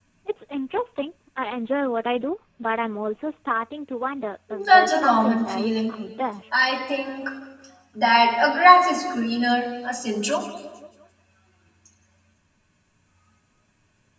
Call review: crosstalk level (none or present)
present